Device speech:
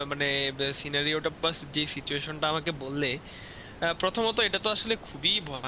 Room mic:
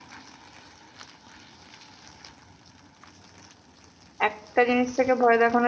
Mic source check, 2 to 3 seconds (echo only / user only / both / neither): neither